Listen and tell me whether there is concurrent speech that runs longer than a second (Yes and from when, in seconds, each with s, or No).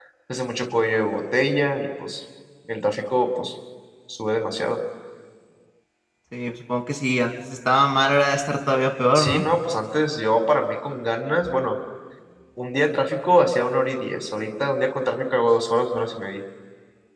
No